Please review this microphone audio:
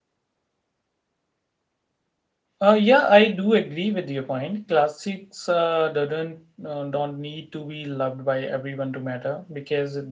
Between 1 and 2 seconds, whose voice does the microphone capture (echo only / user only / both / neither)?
neither